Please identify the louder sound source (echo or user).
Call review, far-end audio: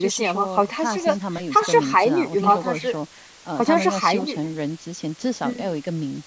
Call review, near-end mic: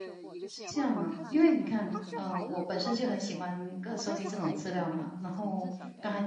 user